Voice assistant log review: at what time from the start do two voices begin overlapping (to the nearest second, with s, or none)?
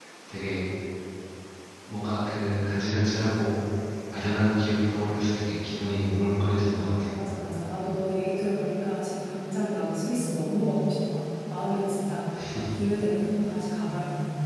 none